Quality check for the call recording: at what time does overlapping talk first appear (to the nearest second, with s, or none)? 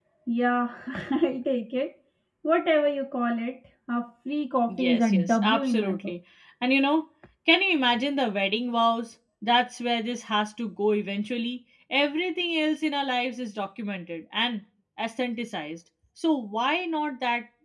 5 s